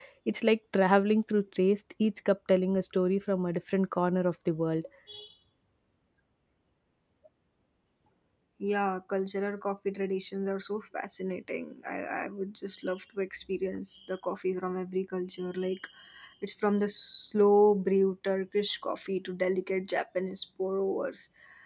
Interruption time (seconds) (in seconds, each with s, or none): none